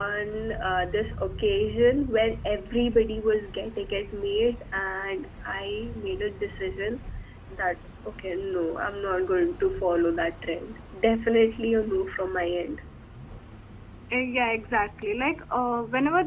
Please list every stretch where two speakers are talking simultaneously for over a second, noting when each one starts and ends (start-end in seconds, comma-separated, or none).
none